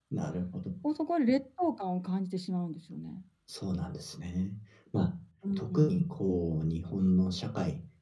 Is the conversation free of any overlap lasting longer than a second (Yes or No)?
Yes